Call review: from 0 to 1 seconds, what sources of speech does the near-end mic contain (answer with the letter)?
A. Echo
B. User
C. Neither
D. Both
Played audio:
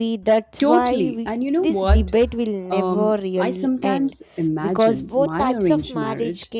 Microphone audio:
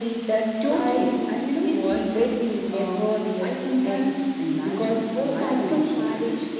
A